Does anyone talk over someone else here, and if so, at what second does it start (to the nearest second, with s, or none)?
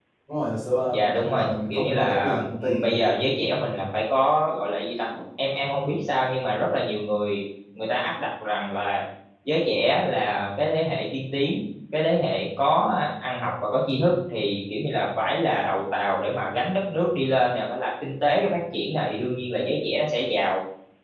1 s